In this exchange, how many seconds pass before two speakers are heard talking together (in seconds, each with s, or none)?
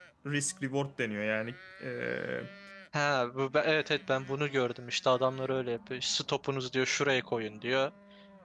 none